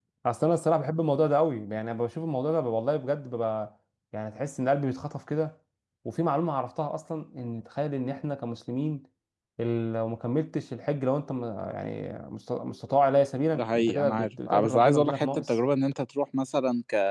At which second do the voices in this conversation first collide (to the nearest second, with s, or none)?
14 s